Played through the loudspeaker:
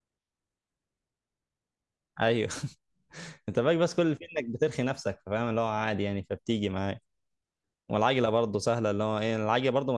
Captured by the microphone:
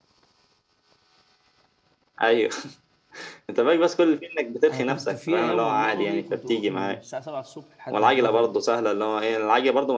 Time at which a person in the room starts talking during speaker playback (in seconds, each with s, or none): 4.7 s